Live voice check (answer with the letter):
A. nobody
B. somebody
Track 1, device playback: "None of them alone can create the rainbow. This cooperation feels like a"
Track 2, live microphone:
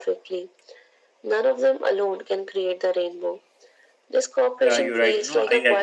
B